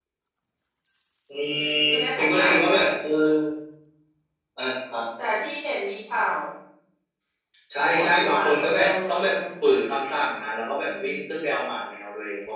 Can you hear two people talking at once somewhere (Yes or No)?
Yes